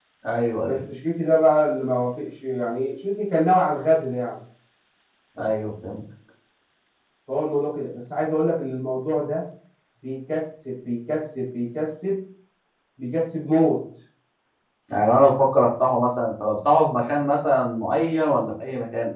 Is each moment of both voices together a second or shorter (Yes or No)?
Yes